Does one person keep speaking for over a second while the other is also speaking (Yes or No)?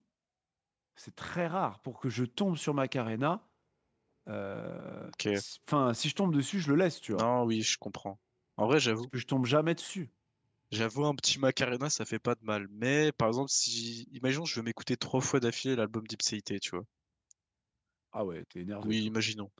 No